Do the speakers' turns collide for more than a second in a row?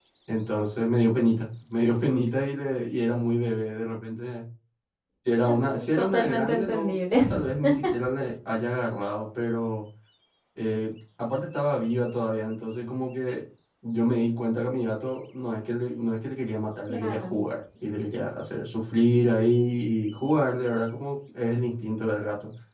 Yes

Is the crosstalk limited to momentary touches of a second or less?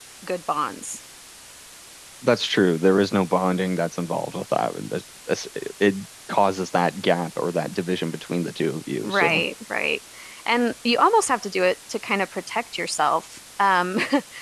Yes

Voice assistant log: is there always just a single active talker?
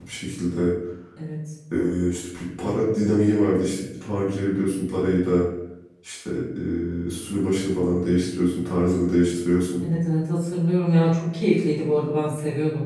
Yes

